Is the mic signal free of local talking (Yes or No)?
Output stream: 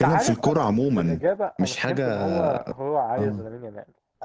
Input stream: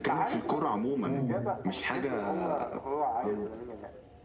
No